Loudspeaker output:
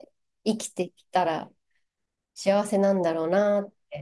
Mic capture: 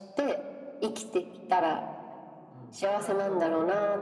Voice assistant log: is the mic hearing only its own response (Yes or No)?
No